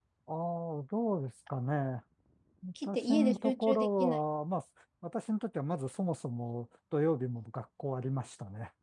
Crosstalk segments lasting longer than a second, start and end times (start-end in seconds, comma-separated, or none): 2.8-4.2